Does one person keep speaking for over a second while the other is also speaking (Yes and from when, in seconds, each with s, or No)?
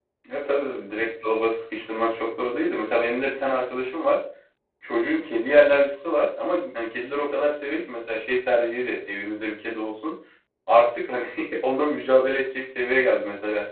No